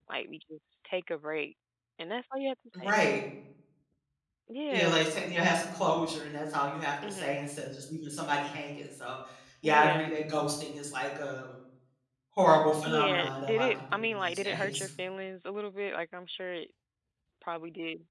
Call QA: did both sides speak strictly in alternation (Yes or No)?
No